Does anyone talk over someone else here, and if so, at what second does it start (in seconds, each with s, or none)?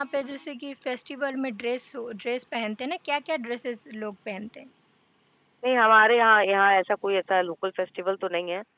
none